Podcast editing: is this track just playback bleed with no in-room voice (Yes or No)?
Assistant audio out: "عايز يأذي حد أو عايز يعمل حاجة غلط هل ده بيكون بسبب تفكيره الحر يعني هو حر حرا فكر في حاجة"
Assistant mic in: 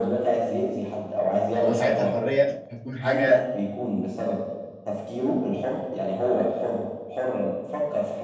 No